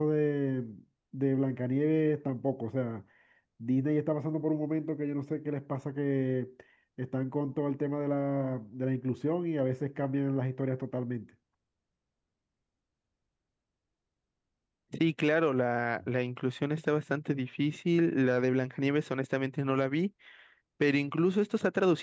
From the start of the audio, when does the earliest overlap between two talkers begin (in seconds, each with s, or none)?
none